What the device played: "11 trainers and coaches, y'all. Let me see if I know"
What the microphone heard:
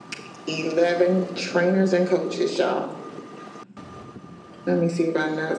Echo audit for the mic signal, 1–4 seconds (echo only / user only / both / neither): echo only